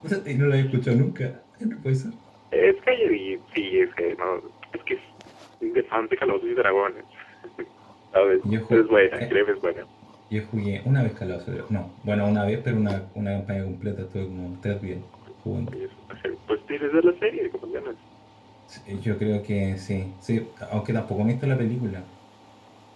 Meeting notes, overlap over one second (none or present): none